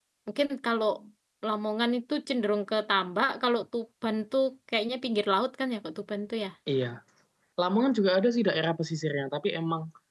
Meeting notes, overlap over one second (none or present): none